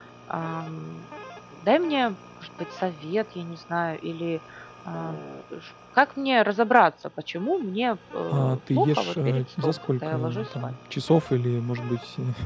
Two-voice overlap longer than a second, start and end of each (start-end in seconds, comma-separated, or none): 8.3-10.7